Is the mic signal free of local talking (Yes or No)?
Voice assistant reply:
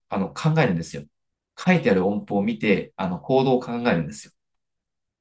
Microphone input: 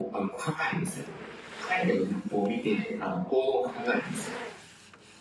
Yes